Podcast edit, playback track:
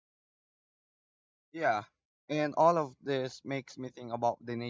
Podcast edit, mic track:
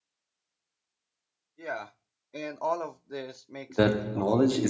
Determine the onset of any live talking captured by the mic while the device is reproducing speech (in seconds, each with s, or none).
3.8 s